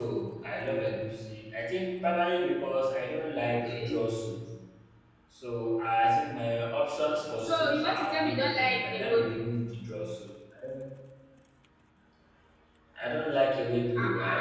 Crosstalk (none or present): present